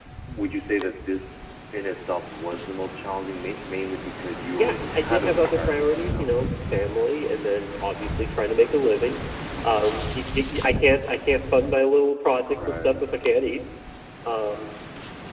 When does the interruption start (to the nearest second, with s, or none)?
5 s